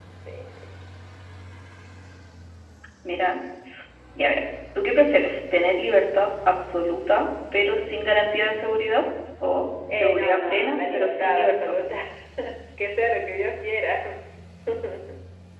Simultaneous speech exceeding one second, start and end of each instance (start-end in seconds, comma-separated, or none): 9.9-11.7